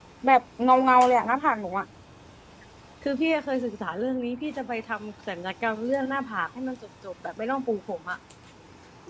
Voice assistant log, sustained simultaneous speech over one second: none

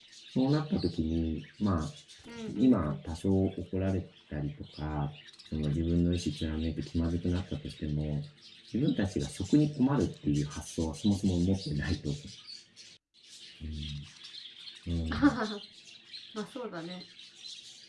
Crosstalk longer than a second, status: none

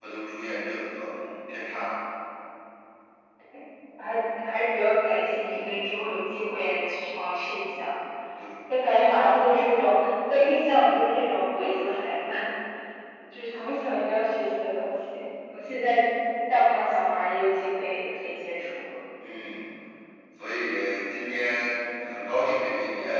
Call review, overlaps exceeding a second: none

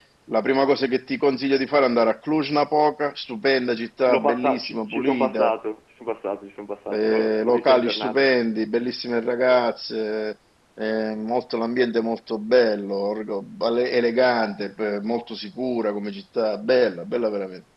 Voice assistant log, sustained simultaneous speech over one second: present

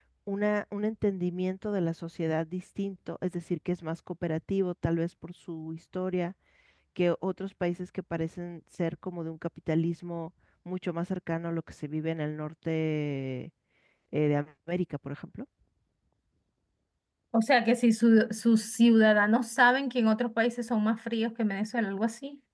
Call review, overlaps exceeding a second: none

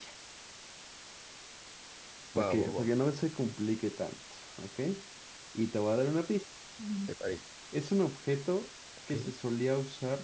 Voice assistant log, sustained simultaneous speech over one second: none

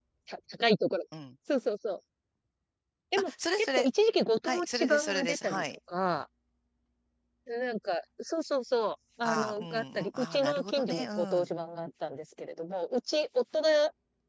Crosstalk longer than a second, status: present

